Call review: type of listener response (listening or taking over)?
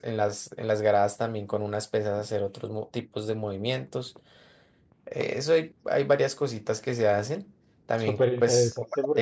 taking over